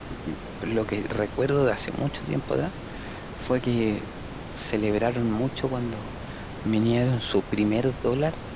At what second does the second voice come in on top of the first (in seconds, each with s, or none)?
none